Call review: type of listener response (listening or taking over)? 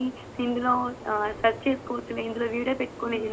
taking over